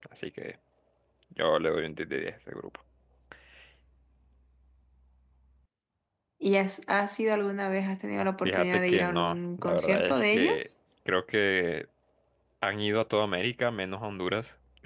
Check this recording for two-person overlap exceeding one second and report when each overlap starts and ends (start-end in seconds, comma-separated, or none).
8.4-10.7